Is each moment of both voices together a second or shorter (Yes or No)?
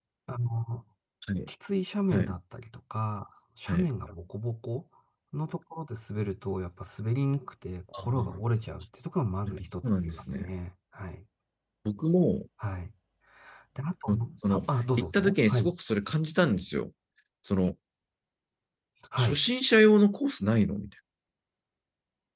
No